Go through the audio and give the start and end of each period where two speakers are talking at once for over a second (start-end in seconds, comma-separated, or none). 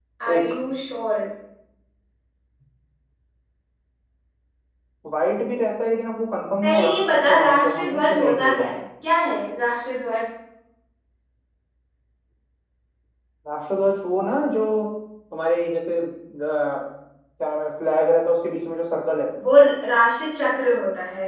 6.6-8.8